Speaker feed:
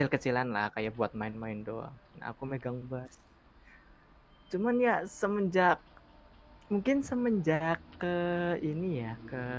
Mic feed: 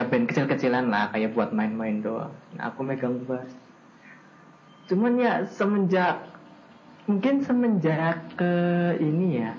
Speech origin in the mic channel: echo only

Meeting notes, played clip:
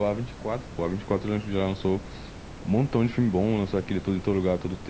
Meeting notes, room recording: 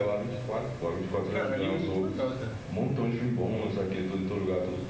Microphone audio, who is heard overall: both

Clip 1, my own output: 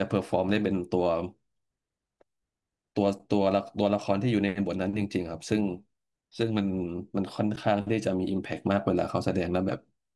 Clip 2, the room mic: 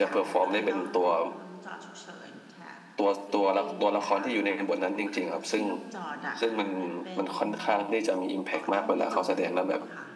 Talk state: both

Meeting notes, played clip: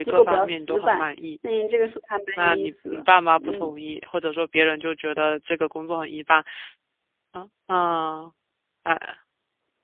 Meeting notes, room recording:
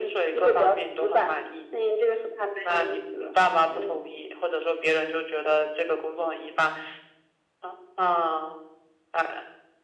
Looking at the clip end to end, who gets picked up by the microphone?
echo only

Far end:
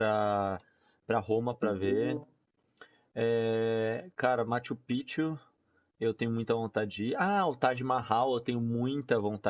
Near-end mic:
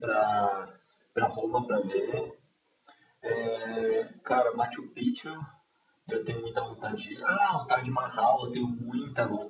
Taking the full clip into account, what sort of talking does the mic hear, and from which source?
echo only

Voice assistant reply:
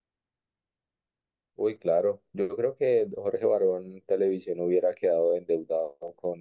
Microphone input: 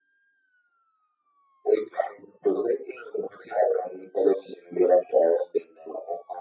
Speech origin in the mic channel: echo only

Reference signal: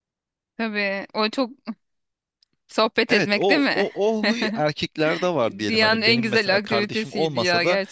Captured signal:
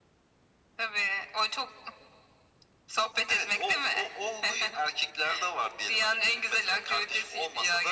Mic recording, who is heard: echo only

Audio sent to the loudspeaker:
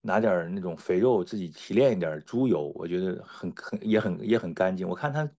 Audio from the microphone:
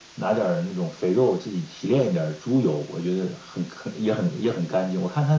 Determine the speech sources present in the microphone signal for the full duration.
echo only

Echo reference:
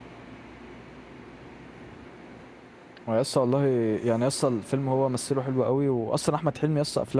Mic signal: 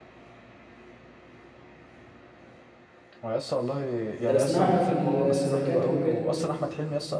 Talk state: both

